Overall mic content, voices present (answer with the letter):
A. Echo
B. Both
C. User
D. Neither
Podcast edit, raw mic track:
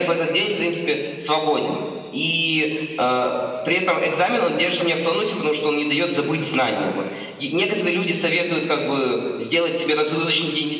A